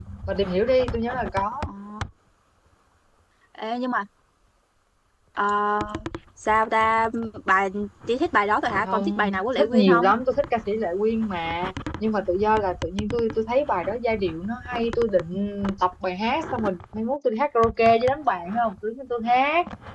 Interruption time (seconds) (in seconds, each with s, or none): 8.8 s